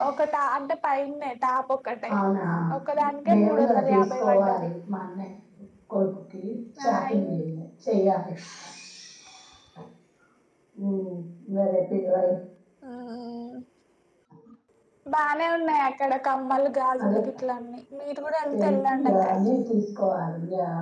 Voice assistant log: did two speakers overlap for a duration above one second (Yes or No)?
Yes